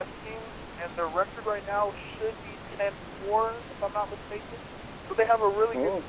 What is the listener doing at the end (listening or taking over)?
listening